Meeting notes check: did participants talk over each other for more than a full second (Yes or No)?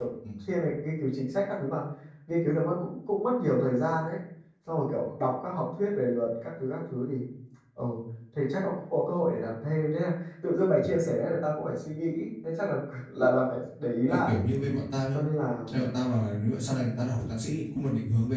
No